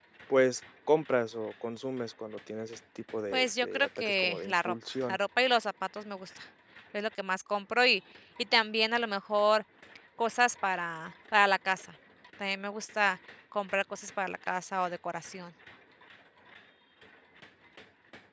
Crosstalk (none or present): present